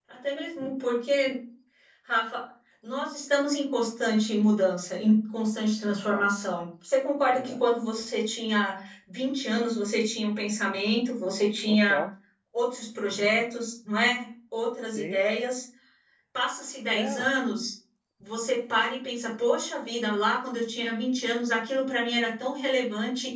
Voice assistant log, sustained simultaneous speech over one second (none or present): none